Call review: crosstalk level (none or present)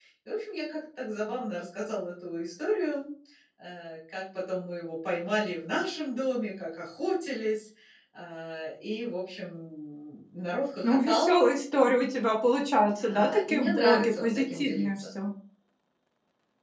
present